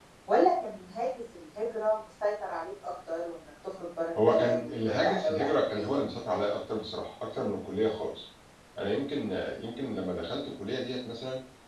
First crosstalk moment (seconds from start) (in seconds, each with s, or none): 4.2 s